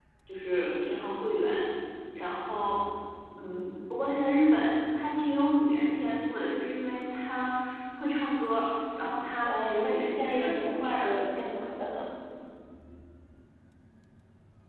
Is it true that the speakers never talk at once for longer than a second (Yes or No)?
No